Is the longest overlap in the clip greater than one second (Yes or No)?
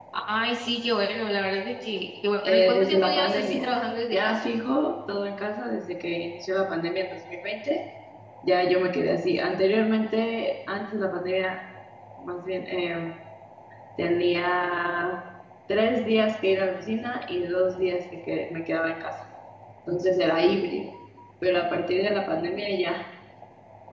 Yes